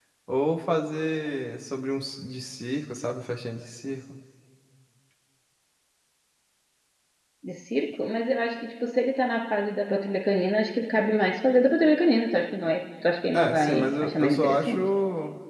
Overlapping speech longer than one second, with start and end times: 13.3-14.8

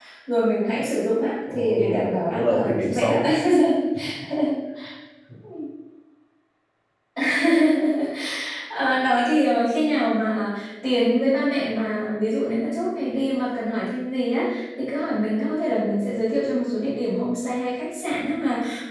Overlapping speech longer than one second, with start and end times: 1.5-3.2

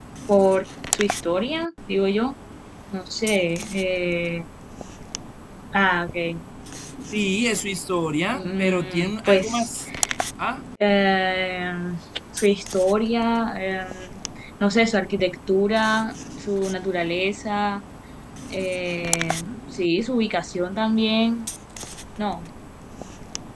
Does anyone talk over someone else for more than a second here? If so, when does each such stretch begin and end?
8.3-9.7

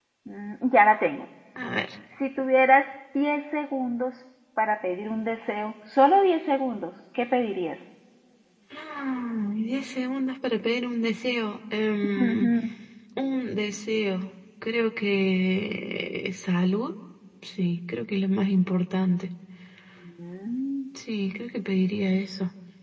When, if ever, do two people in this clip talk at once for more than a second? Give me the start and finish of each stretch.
none

